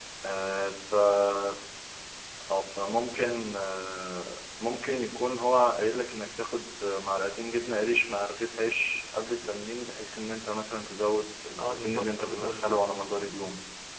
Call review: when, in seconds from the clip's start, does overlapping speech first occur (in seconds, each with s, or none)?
11.6 s